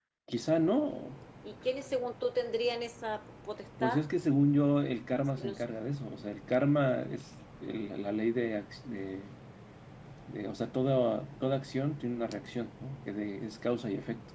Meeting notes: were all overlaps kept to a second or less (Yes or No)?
Yes